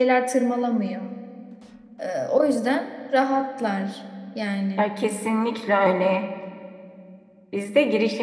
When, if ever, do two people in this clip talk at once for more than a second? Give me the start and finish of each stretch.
none

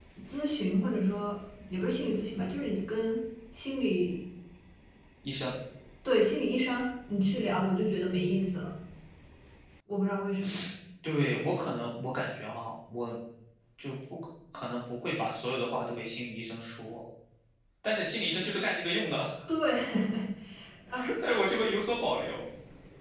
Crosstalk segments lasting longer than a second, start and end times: none

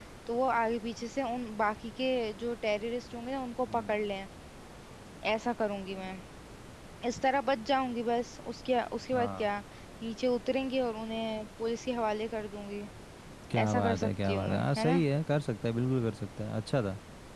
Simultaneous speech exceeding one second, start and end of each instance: 13.6-15.0

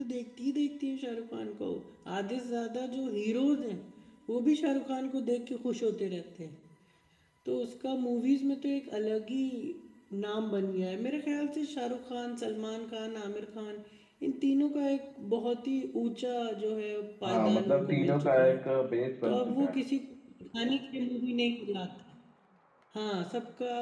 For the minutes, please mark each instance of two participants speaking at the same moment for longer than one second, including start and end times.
17.3-18.6

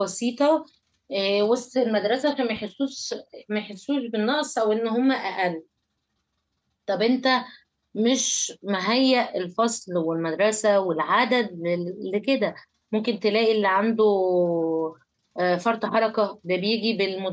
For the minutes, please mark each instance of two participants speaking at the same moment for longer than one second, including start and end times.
none

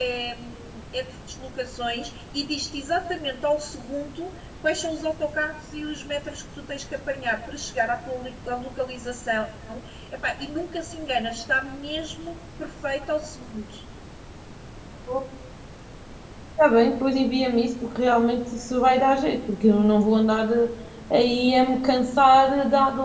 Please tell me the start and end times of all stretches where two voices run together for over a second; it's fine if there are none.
none

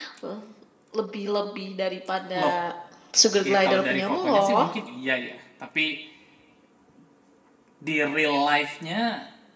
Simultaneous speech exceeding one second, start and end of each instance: 3.4-4.7

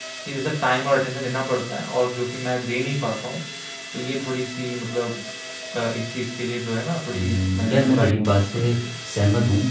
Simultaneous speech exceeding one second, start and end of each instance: 7.1-8.7

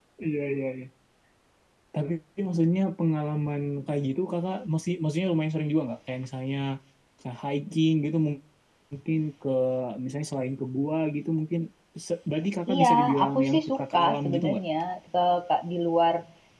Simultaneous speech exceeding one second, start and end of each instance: 12.8-14.6

